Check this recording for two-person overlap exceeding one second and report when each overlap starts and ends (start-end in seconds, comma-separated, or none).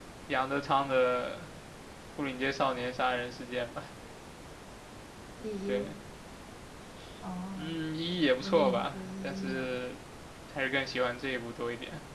8.4-9.8